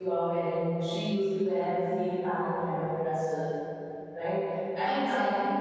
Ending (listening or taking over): listening